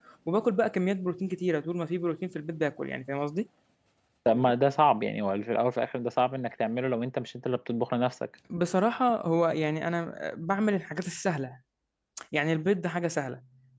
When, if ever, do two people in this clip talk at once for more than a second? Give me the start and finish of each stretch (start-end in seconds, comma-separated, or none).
none